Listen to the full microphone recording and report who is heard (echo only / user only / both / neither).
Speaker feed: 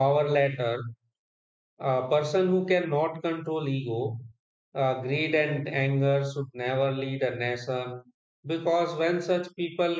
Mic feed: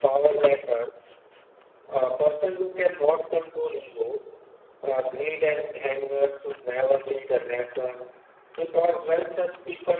echo only